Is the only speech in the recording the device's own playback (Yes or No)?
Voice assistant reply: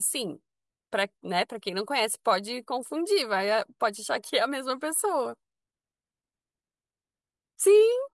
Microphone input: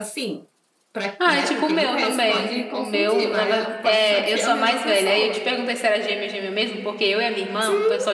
No